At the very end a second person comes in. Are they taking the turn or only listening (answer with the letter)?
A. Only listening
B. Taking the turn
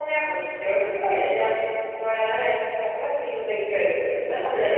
B